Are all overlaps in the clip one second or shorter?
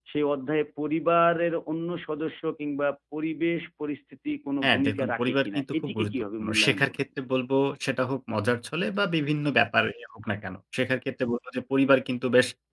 No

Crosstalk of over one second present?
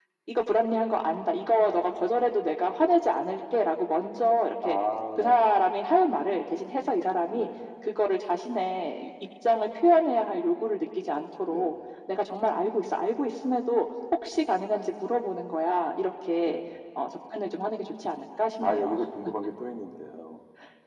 No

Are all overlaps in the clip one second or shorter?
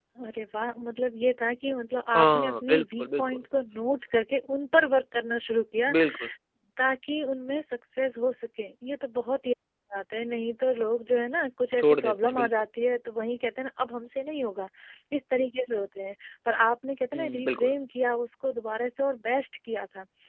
No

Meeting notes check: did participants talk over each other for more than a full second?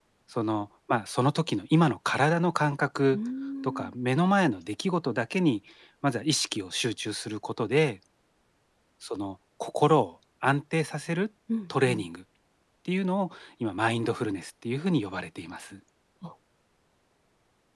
No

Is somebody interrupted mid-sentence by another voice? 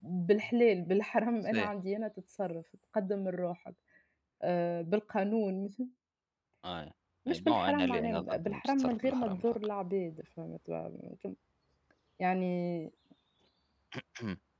Yes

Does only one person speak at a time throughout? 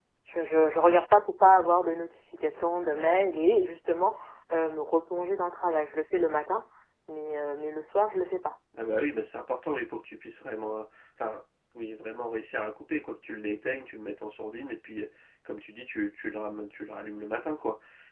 Yes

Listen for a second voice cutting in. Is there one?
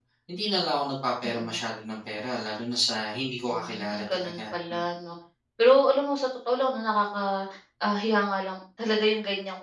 Yes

